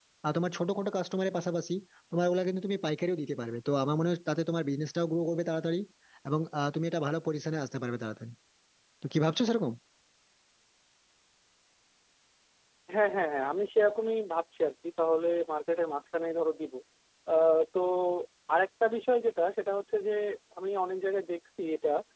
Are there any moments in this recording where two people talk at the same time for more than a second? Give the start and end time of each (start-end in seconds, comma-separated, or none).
none